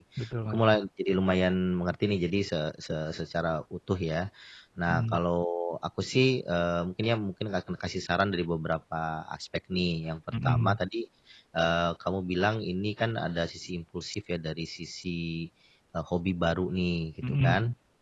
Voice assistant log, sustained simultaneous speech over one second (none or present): none